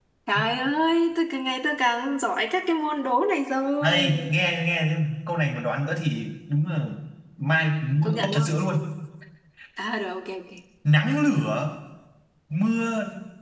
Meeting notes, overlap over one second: none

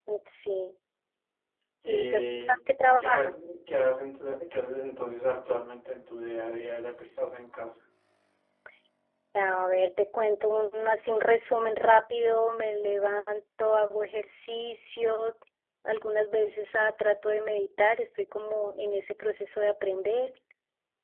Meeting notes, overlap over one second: present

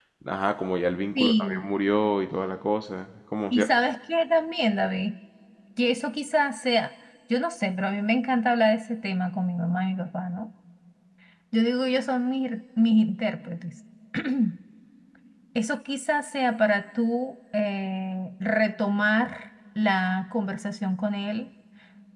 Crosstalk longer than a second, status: none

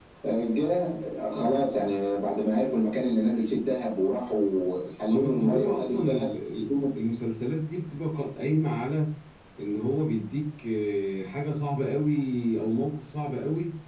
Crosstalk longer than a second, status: present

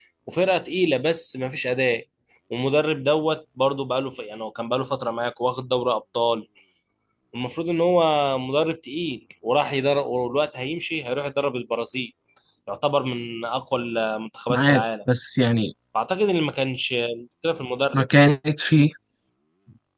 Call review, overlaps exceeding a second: none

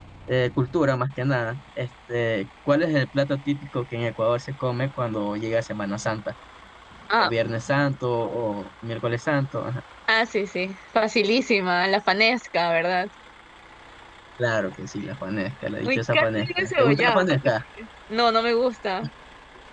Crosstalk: present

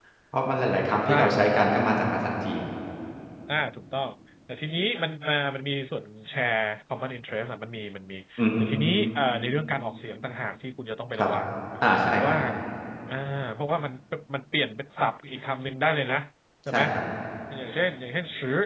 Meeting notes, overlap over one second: none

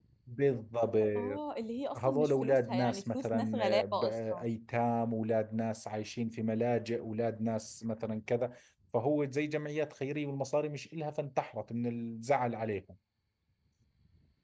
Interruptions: present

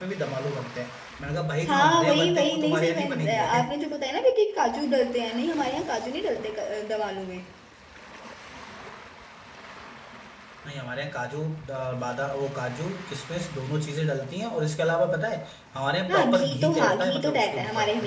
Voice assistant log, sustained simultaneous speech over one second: present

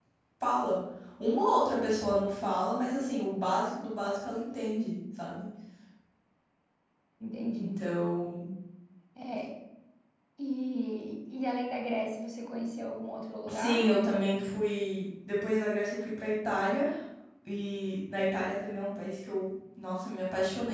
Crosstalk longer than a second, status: none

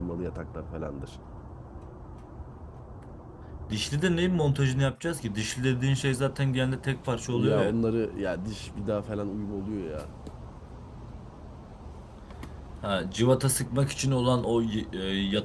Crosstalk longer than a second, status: none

